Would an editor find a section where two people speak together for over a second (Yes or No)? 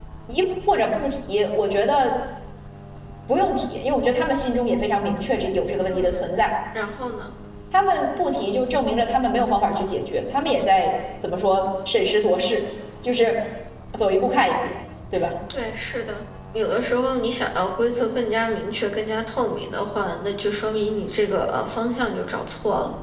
No